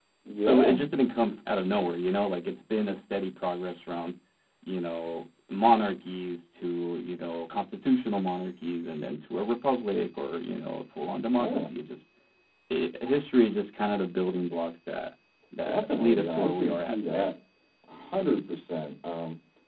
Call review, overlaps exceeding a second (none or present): present